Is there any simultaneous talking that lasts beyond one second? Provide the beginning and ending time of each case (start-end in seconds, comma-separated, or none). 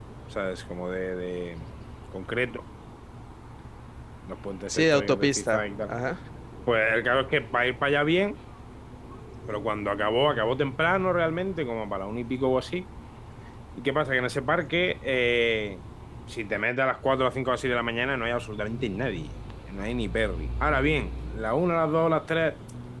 4.7-5.9